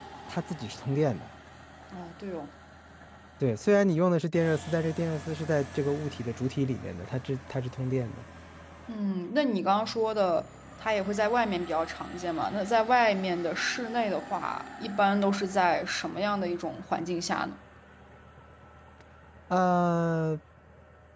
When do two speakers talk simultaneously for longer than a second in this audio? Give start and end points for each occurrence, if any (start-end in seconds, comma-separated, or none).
none